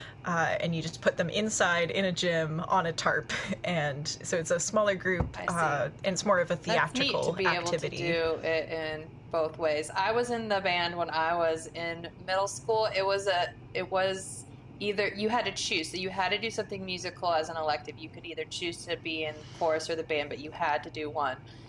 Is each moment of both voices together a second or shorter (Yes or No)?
No